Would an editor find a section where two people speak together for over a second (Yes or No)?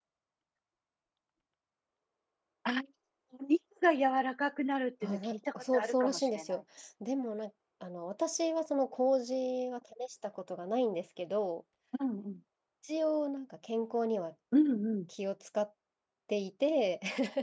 Yes